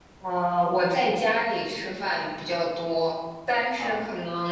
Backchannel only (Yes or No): Yes